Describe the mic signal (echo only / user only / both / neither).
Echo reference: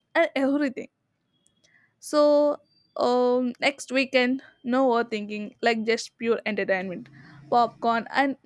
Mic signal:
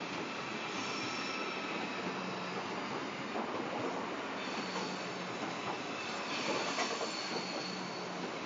neither